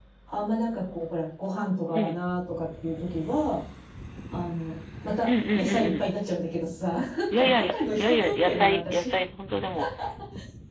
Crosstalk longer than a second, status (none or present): present